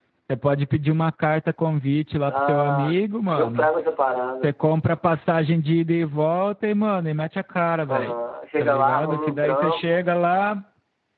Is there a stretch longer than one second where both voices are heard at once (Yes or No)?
Yes